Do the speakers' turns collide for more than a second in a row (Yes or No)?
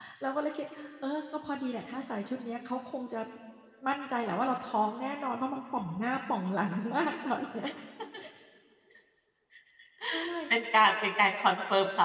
No